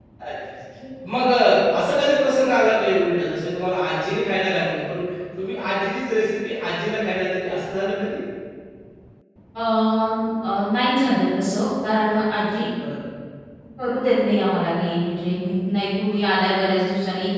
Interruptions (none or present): none